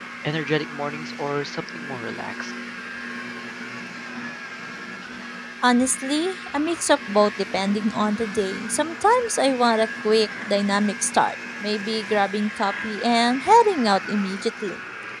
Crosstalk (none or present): none